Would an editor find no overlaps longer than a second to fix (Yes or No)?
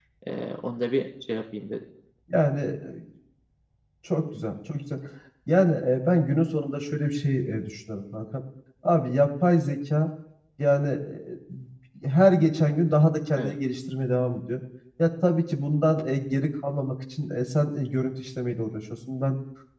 Yes